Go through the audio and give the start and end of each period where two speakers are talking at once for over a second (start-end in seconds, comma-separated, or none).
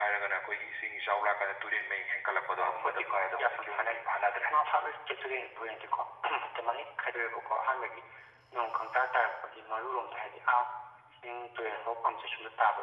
2.6-4.0